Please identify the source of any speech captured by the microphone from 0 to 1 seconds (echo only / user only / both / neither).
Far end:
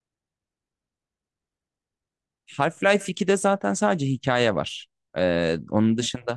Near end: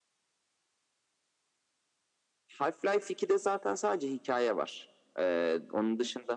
neither